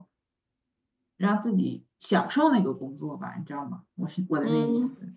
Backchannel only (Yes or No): No